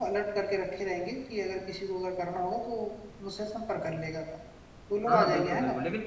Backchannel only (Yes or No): No